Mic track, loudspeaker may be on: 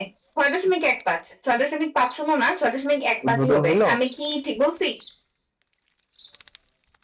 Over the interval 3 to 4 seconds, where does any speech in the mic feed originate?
both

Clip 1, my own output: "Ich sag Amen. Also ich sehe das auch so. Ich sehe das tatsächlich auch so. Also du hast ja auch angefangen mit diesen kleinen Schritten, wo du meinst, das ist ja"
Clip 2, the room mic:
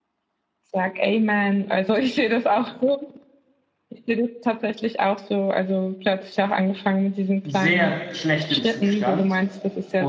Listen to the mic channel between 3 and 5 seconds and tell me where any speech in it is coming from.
echo only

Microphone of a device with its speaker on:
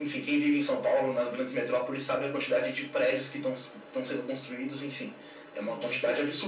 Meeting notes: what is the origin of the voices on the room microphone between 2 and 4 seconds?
echo only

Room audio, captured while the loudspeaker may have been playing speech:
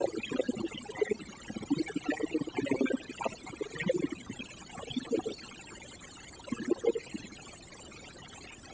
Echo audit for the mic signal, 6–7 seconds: echo only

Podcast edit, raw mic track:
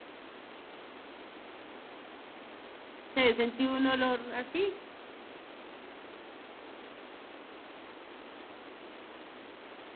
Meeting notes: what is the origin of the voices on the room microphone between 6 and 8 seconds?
neither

